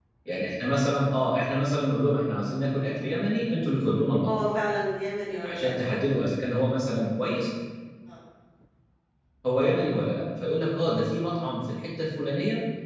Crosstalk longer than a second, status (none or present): none